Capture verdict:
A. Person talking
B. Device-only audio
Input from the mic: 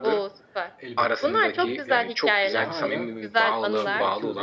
A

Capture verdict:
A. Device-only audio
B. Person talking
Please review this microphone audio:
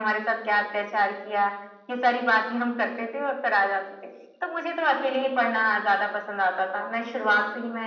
A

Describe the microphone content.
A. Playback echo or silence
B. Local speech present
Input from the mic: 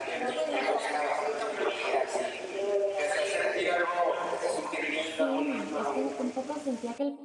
B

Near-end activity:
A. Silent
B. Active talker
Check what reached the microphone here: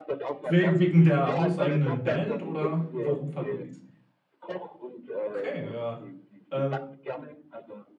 B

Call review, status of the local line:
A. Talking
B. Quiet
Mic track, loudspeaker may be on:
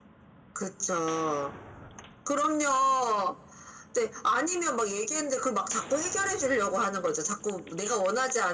B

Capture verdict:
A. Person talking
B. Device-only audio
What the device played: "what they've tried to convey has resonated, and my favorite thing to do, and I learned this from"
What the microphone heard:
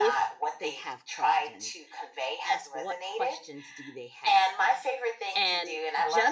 A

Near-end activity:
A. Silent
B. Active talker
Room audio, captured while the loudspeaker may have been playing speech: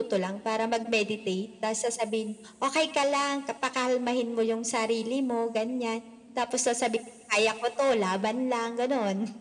A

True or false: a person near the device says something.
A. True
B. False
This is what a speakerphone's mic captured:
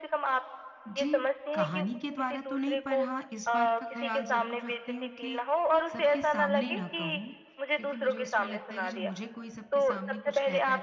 A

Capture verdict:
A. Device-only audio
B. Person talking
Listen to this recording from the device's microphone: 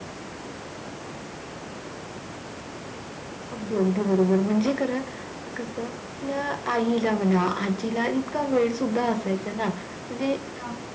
A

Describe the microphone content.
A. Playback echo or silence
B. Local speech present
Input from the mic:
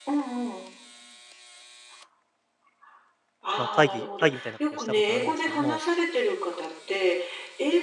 B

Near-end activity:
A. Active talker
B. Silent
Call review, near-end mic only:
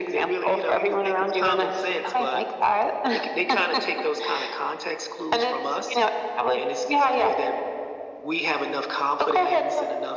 B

